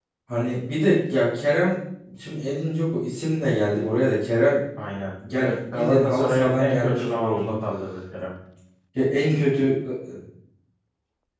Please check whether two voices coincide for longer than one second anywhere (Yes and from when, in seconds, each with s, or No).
Yes, from 5.3 s